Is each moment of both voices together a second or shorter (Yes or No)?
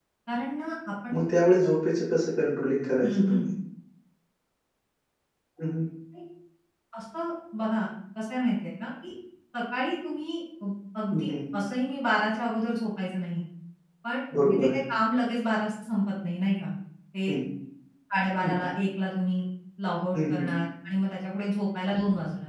Yes